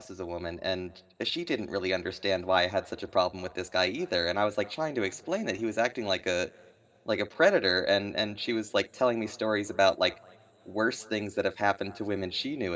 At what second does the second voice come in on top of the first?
none

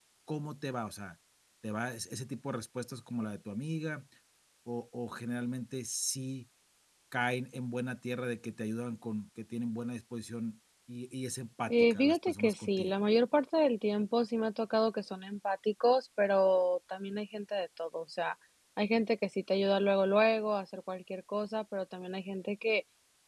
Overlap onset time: 11.7 s

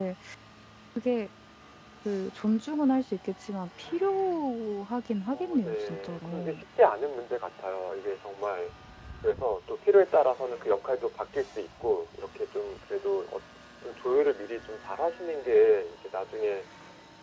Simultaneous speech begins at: 5.3 s

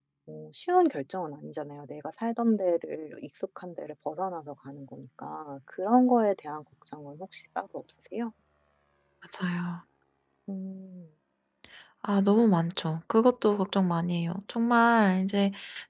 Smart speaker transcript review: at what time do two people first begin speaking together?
none

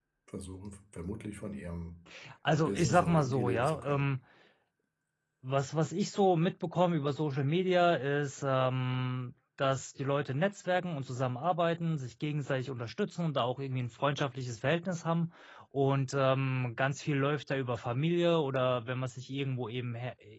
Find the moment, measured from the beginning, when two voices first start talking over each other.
2.6 s

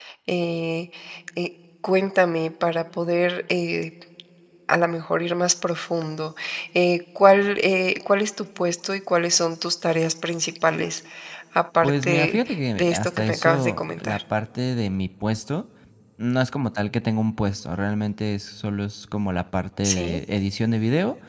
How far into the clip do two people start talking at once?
11.8 s

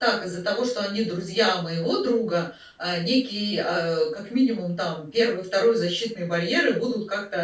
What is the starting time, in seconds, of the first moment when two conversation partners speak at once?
none

